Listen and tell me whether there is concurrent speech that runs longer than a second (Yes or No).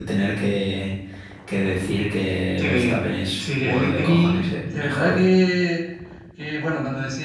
Yes